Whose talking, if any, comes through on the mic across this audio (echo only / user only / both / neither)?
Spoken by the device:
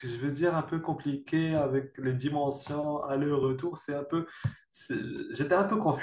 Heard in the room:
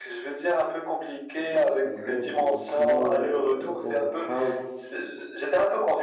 both